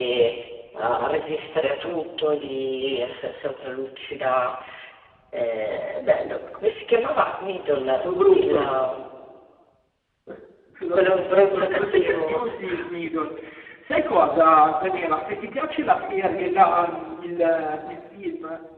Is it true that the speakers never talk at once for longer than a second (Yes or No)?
No